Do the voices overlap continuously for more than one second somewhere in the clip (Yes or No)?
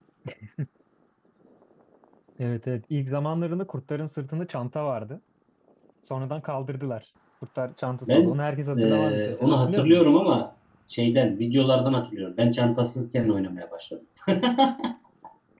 Yes